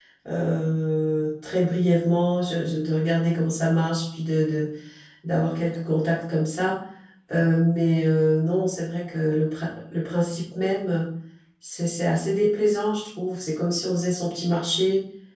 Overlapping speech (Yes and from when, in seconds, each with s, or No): No